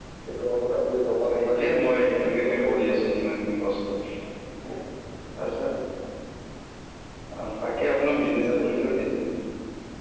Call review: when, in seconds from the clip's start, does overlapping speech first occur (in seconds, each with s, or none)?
1.2 s